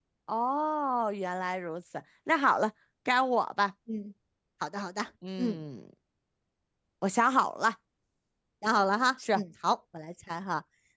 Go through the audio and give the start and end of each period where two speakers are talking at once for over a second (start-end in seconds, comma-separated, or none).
none